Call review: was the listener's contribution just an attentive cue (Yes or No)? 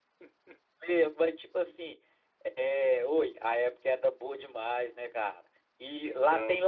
Yes